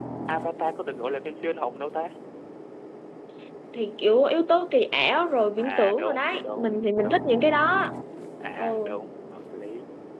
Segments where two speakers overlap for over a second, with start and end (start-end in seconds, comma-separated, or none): 5.6-7.4